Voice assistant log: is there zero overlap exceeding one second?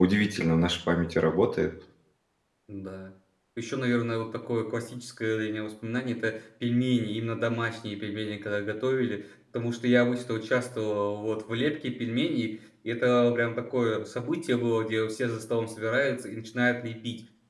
Yes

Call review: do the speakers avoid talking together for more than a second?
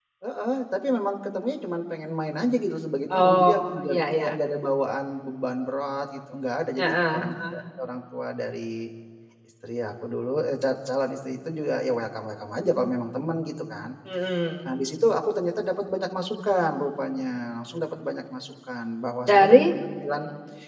No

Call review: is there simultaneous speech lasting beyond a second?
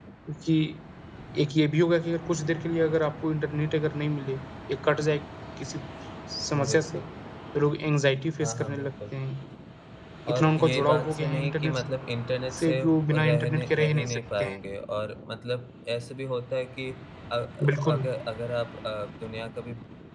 Yes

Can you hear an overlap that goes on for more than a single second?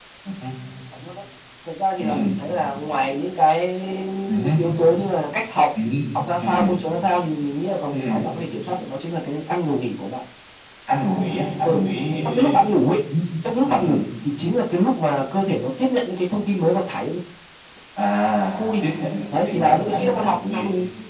Yes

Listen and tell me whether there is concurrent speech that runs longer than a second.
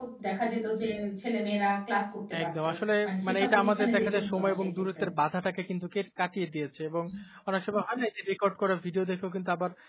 Yes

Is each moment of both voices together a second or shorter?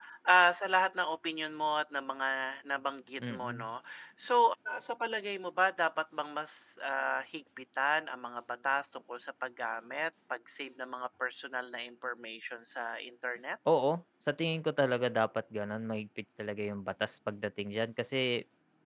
Yes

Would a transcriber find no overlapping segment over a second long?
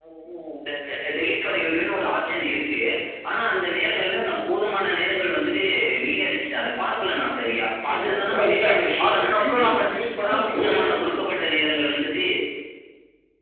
No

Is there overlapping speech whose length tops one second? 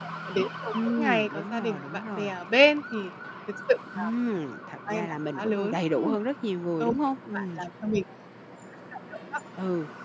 Yes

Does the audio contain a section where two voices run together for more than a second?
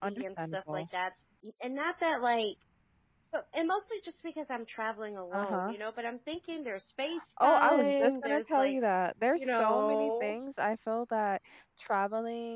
Yes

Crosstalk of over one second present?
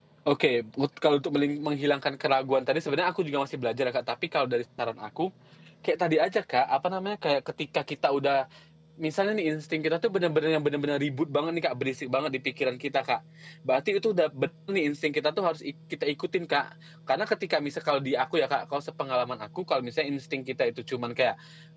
No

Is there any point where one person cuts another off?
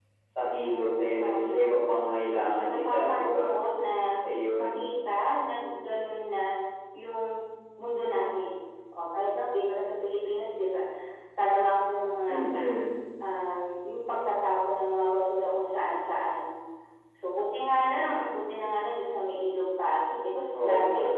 Yes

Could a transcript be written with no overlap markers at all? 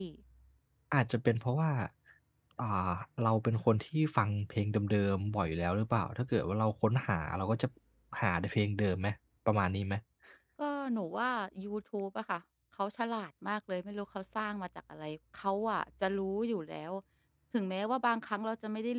Yes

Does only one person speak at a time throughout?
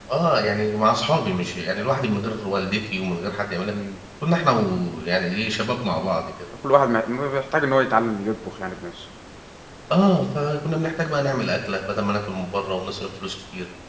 Yes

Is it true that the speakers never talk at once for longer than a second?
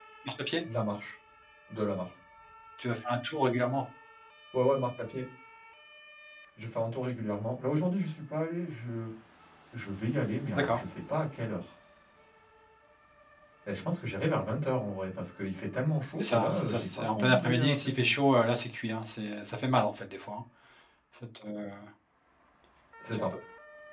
No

